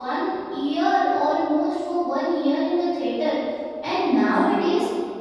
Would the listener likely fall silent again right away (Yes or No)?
Yes